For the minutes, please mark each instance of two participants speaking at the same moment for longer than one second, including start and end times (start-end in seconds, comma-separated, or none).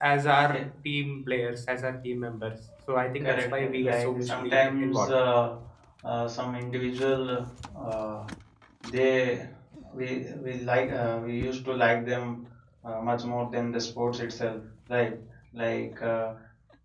3.2-5.1